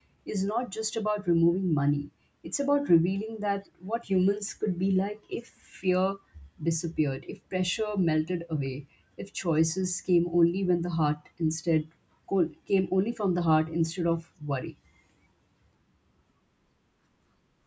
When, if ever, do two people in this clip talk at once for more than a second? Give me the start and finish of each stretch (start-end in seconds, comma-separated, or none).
none